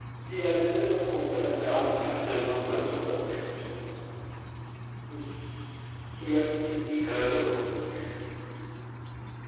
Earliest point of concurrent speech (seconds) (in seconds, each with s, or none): 1.6 s